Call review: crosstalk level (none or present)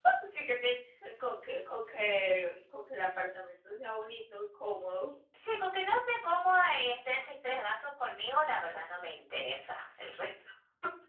none